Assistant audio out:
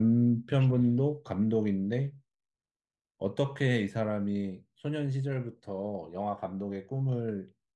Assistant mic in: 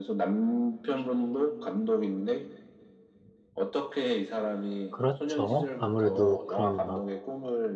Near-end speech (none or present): present